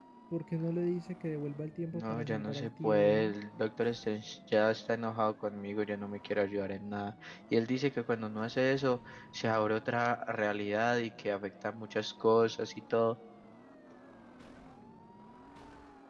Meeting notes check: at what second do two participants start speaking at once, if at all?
1.9 s

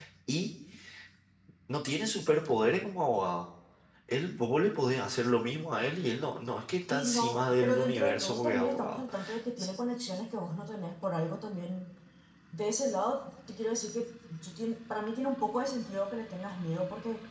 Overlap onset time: 6.9 s

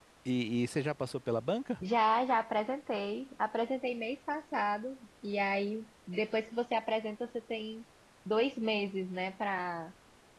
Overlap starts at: none

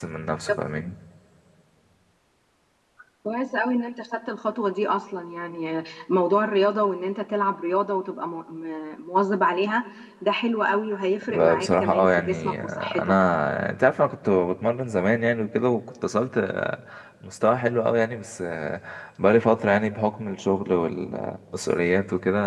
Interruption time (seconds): 11.2 s

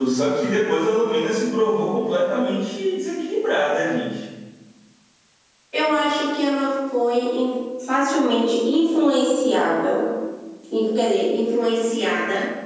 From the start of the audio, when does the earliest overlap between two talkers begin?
none

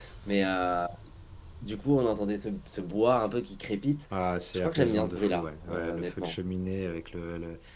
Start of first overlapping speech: 4.5 s

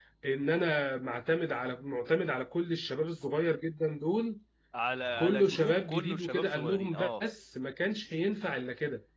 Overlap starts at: 5.2 s

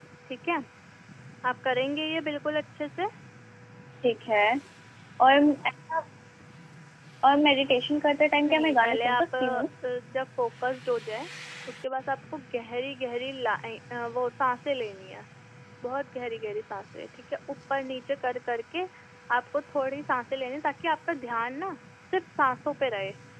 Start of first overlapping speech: 8.4 s

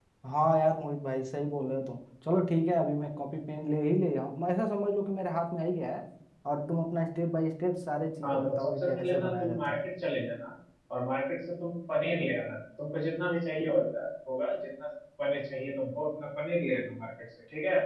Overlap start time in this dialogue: 8.2 s

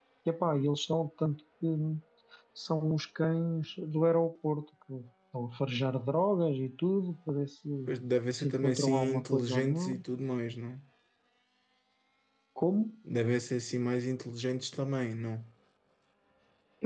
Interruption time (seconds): 8.4 s

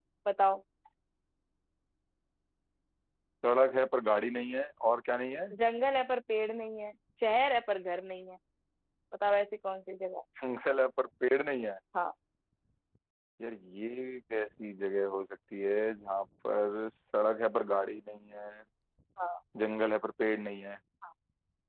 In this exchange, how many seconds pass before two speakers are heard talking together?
none

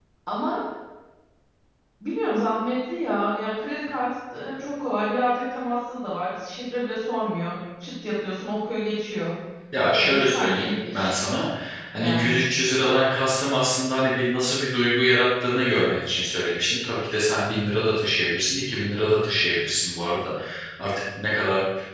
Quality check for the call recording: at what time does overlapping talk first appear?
10.0 s

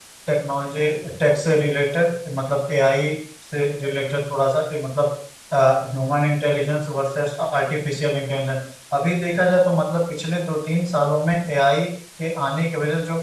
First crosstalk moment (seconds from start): none

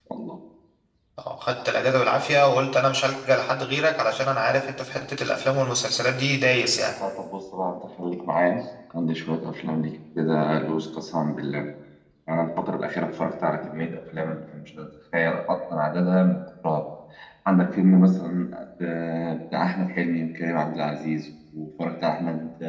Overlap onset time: none

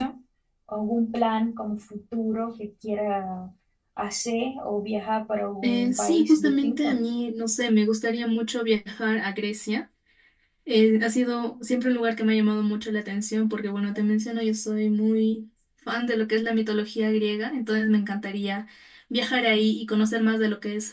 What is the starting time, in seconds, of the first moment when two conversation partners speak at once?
5.6 s

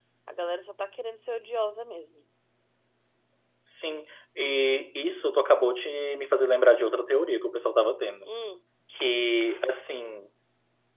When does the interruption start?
none

